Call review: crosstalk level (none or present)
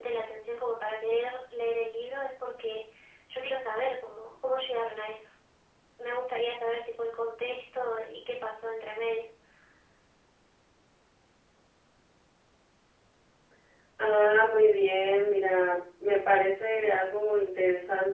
none